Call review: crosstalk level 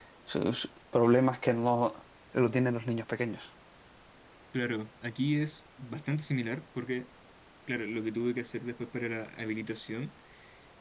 none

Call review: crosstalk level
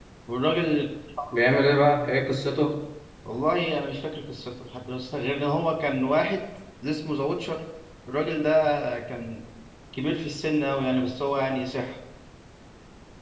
none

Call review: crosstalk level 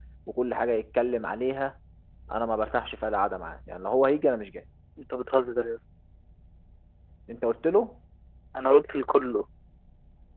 none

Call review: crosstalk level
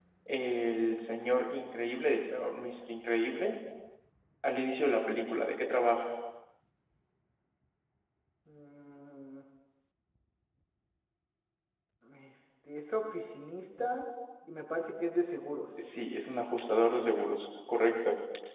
none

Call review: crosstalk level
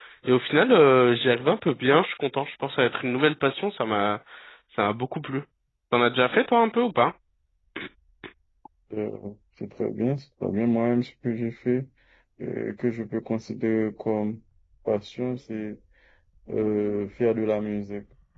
none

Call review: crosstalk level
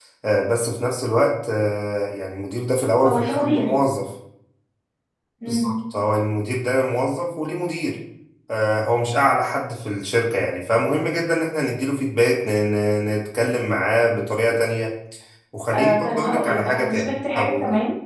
present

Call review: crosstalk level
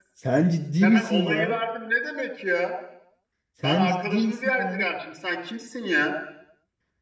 present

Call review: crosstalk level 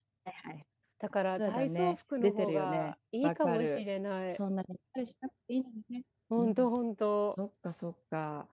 present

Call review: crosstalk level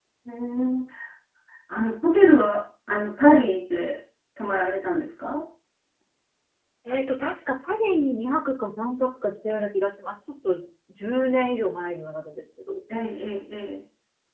none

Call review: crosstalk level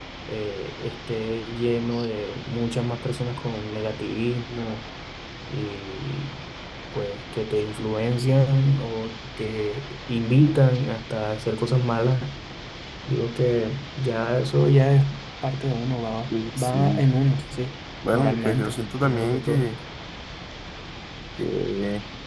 present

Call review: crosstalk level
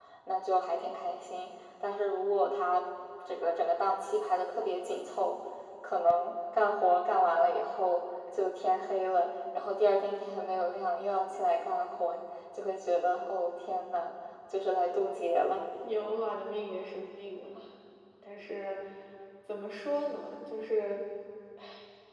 none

